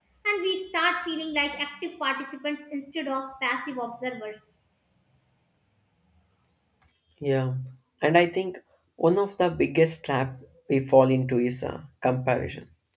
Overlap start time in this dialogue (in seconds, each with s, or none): none